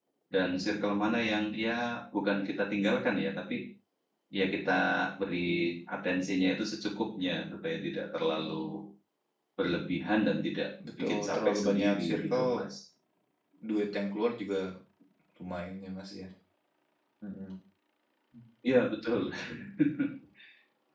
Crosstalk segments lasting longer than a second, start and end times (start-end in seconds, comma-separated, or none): 11.0-12.6